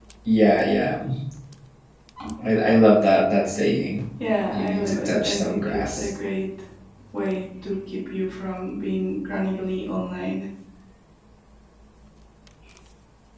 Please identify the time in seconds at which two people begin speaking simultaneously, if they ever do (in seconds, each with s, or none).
4.5 s